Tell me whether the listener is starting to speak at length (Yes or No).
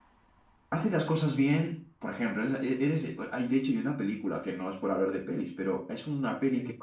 No